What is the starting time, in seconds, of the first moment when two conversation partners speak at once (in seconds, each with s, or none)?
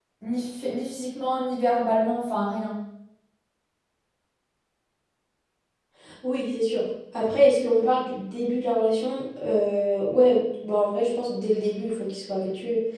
none